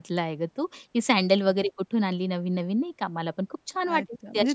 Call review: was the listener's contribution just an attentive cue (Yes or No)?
No